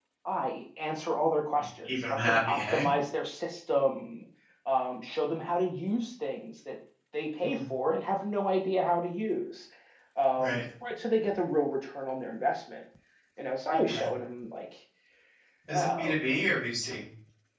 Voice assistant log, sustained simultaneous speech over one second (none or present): present